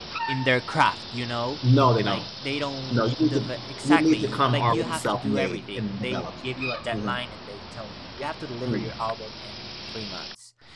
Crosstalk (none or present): present